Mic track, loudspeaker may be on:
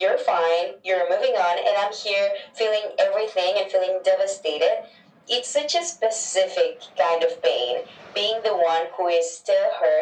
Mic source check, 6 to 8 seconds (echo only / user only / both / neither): echo only